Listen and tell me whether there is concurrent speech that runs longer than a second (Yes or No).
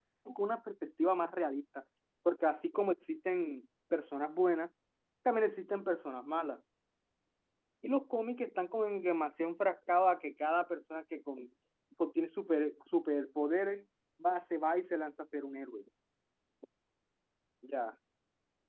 No